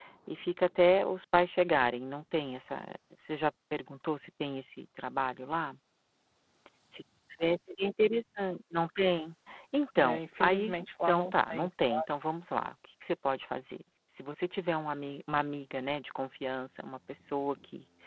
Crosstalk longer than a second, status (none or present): present